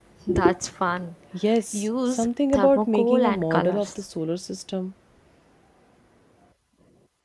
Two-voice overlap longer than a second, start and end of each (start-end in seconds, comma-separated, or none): 1.7-4.1